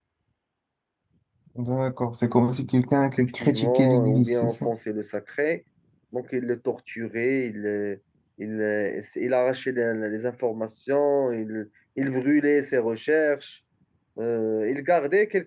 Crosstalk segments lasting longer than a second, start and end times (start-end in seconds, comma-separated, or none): 3.2-4.7